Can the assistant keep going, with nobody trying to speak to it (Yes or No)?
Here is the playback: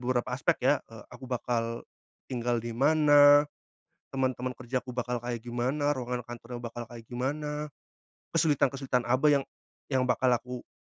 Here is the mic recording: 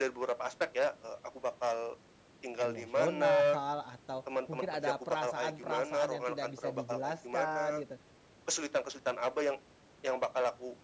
No